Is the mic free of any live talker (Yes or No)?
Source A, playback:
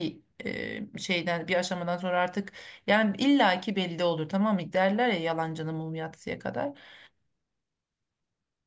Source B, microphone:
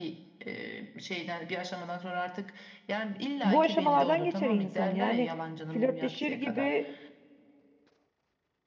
No